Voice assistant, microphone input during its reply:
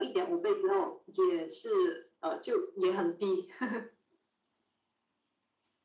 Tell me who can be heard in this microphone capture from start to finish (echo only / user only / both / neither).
echo only